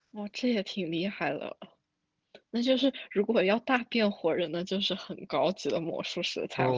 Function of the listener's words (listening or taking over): taking over